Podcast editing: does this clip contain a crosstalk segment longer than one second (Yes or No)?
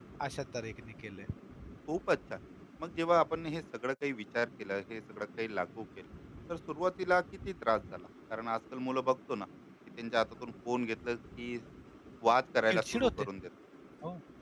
No